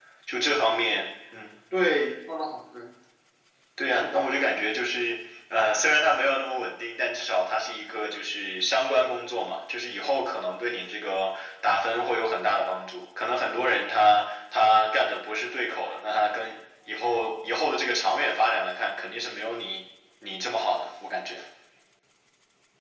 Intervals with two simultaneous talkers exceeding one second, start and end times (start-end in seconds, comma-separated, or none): none